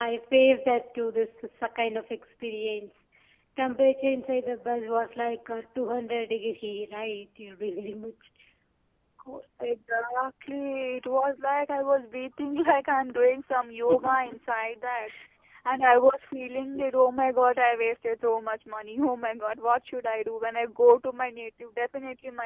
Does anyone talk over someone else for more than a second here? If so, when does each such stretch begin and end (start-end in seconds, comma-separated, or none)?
none